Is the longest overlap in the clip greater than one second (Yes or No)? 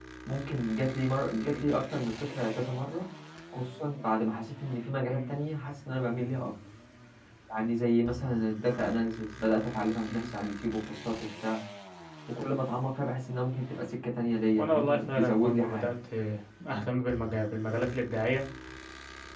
Yes